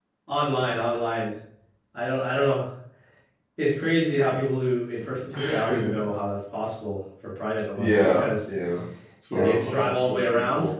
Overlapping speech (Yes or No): Yes